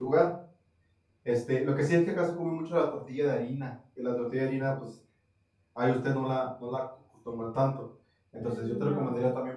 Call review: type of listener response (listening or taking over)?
listening